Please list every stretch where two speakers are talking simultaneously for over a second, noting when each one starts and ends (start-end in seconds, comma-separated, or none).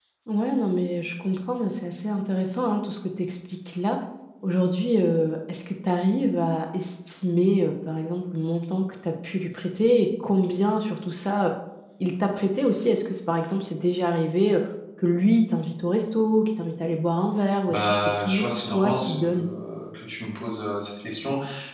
17.7-19.4